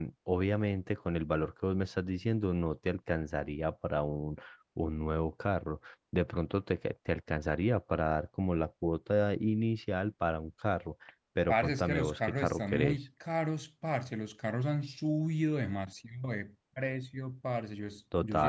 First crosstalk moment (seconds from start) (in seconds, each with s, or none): 11.5 s